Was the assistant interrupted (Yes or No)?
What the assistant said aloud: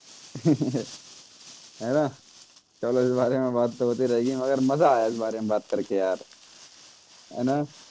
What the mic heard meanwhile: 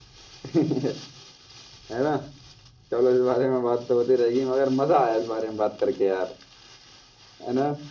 No